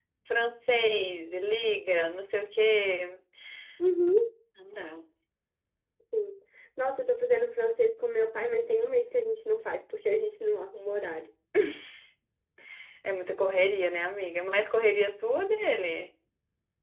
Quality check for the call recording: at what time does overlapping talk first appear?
none

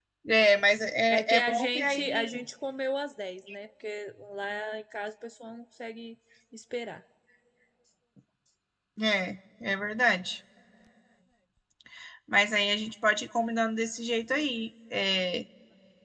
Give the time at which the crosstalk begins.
1.1 s

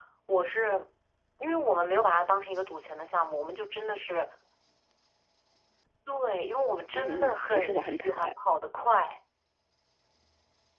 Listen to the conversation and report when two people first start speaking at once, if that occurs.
6.9 s

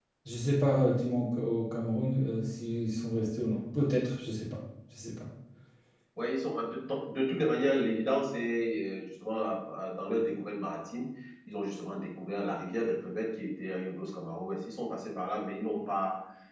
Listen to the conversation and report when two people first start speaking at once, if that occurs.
none

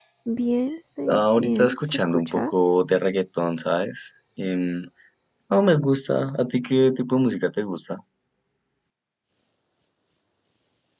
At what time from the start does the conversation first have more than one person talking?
1.1 s

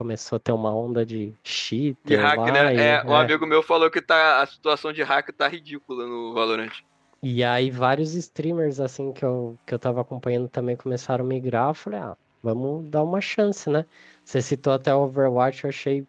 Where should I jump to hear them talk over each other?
2.1 s

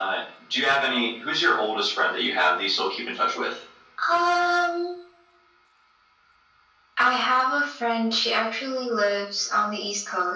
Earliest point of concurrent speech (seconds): none

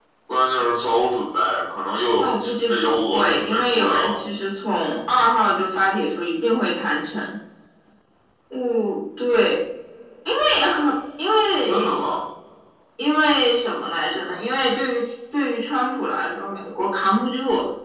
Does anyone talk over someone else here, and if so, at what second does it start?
2.2 s

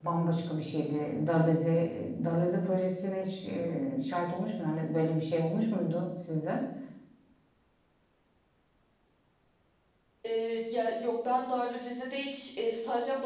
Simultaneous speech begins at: none

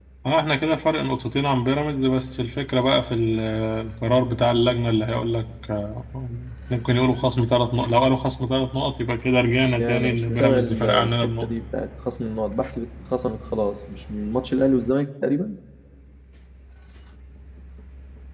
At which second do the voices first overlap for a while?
9.8 s

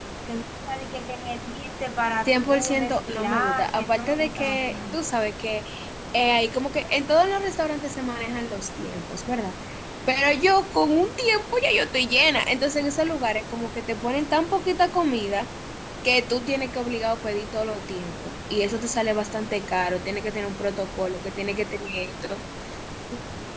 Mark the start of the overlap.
2.2 s

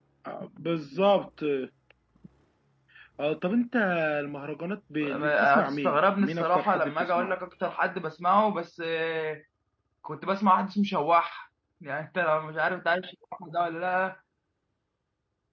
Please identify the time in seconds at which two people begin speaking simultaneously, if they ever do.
5.0 s

